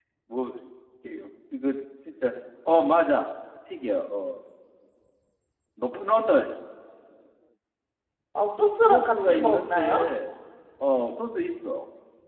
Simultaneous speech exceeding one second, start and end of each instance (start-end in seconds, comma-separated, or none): 8.8-10.0